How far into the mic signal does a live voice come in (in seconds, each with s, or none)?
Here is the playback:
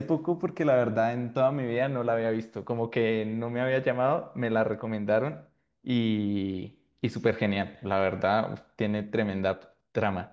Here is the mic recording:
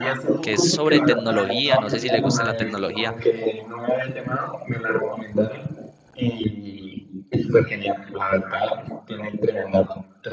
0.4 s